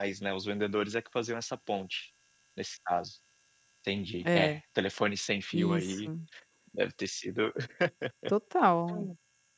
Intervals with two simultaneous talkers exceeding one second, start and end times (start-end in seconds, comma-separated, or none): none